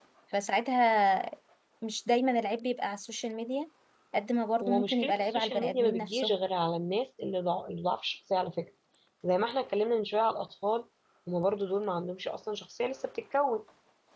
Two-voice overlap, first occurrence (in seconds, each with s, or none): 4.6 s